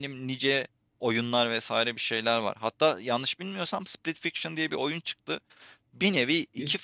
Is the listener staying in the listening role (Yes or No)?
Yes